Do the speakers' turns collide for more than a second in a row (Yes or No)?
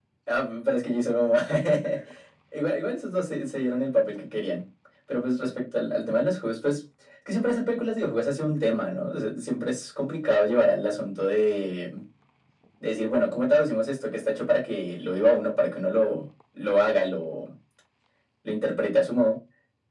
No